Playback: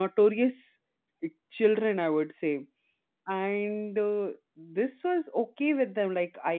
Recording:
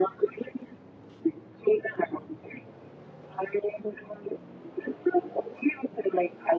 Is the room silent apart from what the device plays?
Yes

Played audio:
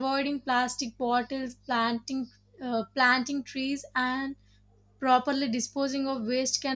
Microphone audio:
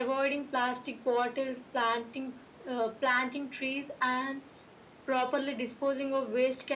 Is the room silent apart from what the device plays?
Yes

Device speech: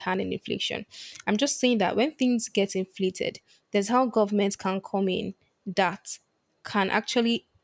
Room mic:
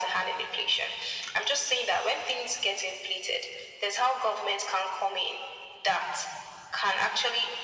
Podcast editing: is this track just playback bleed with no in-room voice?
Yes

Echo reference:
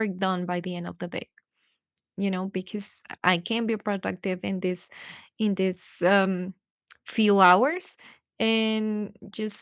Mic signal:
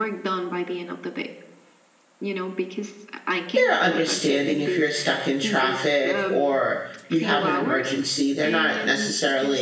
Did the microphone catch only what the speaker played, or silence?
No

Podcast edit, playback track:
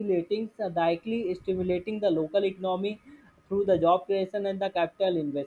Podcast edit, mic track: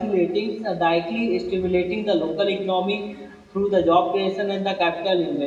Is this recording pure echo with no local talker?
Yes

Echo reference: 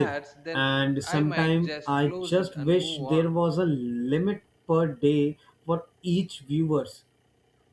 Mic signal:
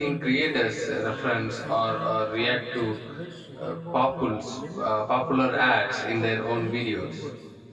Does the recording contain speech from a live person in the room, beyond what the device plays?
Yes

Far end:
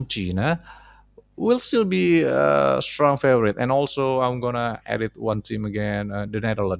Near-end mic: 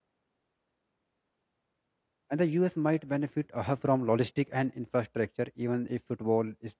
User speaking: Yes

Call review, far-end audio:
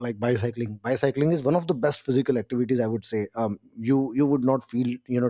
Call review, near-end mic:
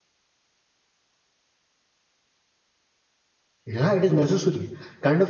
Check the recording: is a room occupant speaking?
Yes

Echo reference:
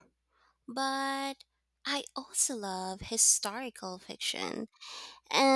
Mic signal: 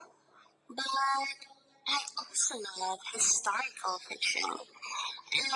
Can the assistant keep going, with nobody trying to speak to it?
Yes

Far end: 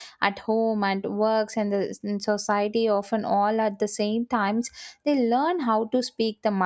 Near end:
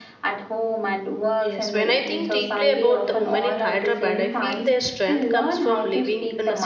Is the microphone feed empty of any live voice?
No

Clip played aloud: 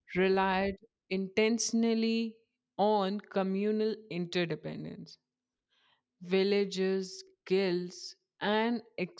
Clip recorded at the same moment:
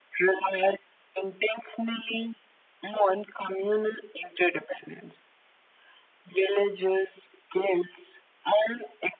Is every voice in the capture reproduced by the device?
Yes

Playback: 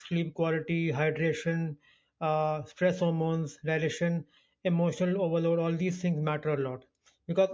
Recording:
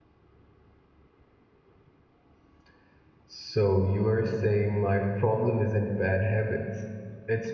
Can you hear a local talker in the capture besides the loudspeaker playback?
Yes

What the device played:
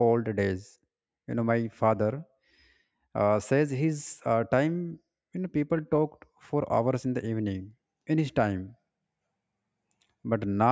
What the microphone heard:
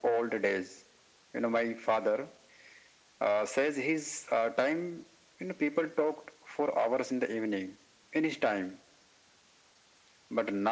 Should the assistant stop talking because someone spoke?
No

